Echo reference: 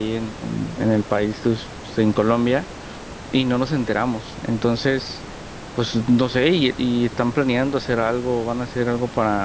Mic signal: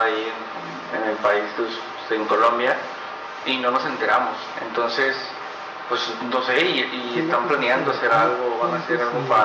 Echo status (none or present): present